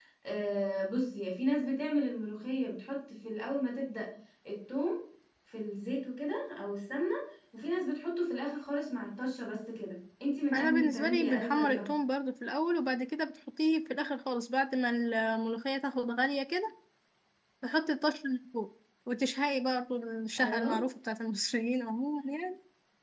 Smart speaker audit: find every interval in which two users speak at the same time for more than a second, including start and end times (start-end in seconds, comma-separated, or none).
10.5-11.8